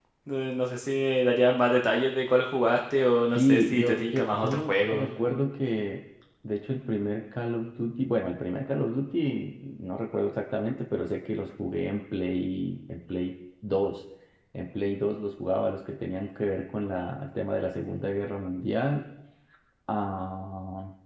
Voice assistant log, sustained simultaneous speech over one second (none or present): present